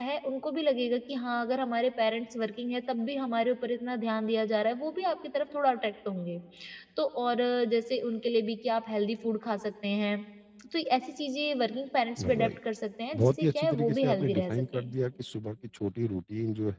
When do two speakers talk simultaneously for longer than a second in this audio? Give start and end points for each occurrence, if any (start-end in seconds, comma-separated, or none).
13.2-14.9